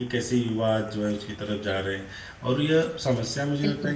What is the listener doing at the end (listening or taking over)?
listening